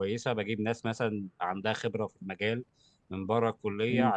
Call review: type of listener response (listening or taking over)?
listening